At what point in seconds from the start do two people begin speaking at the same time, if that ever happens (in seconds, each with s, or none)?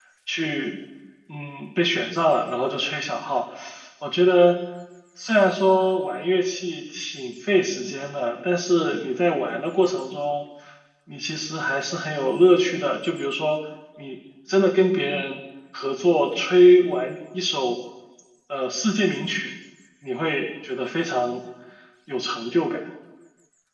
none